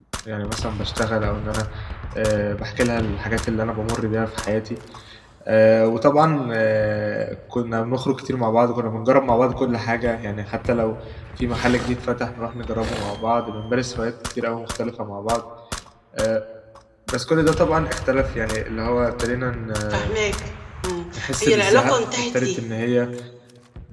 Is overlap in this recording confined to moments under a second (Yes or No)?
No